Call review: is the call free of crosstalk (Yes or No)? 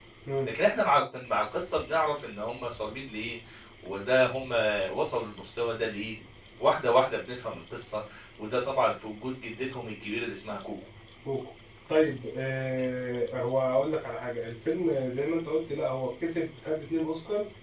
Yes